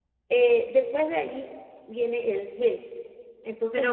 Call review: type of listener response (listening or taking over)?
taking over